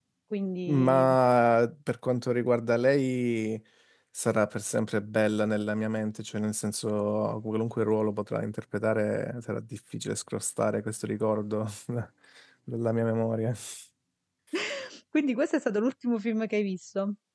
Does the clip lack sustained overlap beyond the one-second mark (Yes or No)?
Yes